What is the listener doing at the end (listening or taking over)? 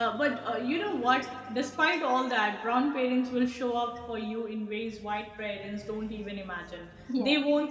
listening